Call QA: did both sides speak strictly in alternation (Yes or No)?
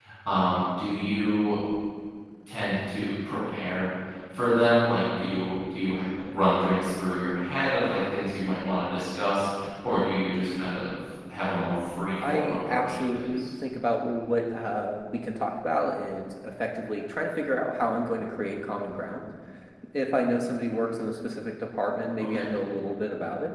No